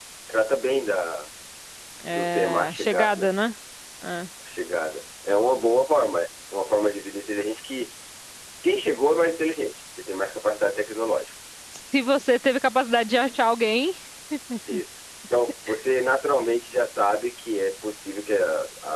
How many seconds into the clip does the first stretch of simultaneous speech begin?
2.1 s

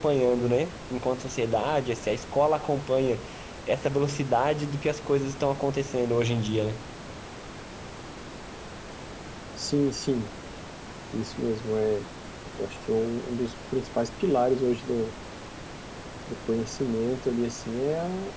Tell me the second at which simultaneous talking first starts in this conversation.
none

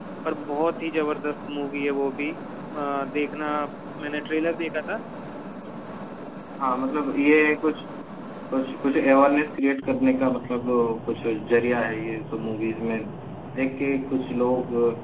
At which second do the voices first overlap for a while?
none

